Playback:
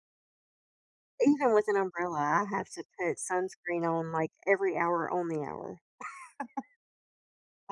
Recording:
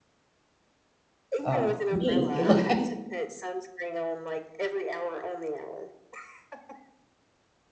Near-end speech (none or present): present